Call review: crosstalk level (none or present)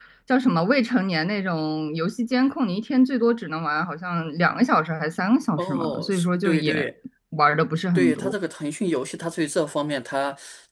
present